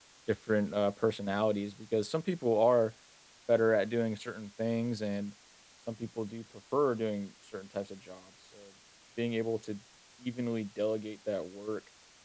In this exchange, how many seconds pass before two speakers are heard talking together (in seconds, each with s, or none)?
none